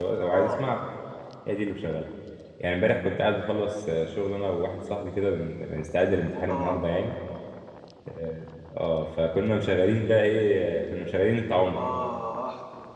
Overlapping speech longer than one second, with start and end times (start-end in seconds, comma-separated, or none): none